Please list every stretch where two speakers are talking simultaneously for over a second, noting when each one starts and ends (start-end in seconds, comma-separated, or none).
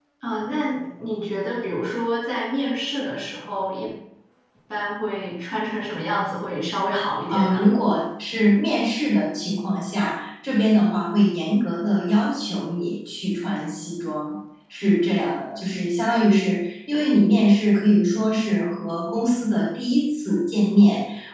none